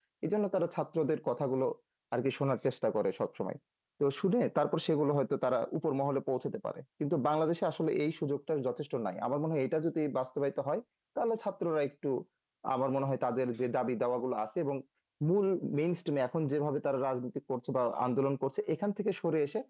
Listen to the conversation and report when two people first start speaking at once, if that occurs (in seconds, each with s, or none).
none